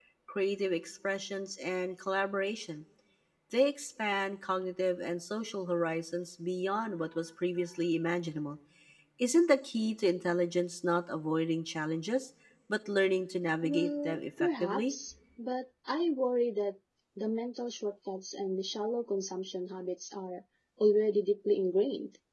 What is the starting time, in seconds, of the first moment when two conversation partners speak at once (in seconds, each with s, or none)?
13.6 s